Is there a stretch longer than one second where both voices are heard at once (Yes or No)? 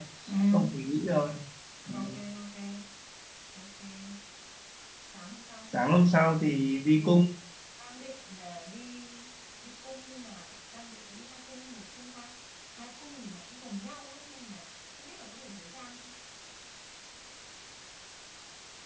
No